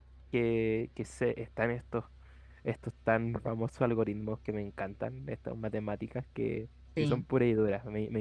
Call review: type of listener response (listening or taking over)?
listening